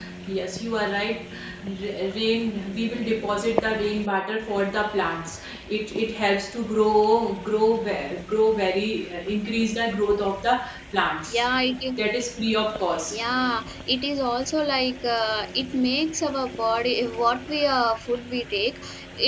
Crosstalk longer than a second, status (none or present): none